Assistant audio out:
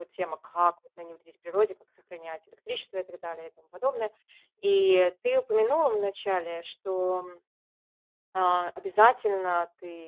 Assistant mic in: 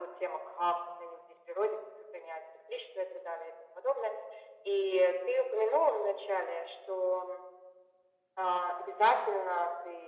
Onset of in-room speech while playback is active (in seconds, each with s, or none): none